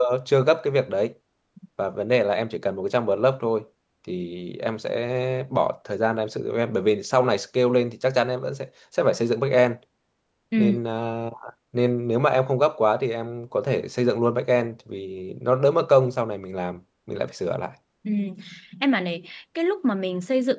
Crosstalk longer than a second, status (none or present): none